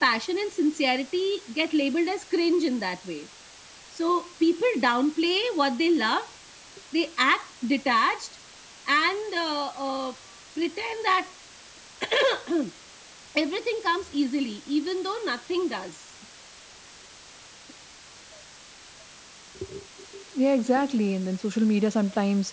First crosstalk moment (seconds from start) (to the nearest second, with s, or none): none